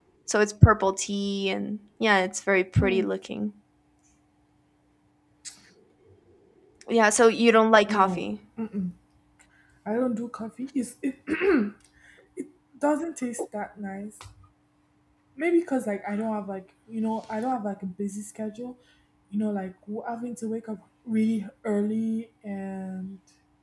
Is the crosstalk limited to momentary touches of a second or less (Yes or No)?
Yes